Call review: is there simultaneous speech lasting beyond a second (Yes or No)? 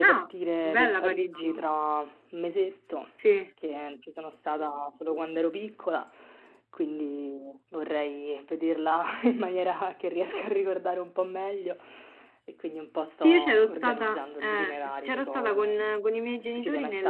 Yes